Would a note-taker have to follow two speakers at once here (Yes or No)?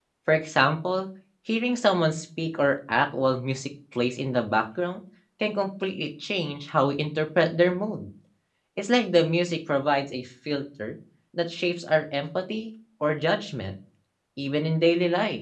No